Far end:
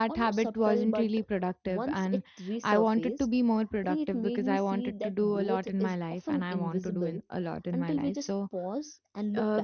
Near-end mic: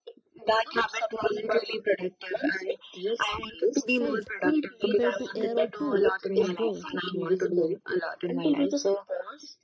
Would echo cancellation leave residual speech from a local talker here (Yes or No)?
Yes